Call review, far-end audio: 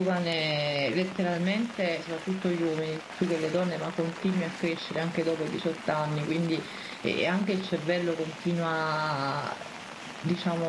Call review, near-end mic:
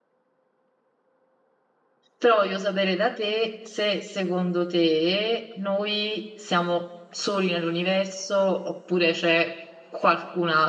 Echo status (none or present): none